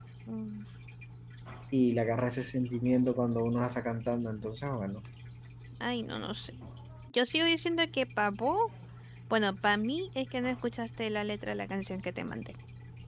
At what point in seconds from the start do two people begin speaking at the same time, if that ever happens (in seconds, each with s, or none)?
none